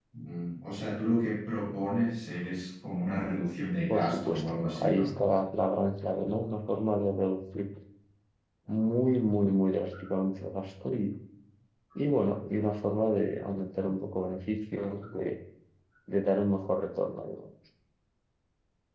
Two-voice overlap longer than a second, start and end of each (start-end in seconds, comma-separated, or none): 3.9-5.1